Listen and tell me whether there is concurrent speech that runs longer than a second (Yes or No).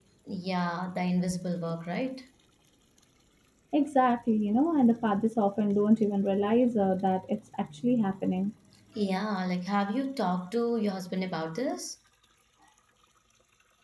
No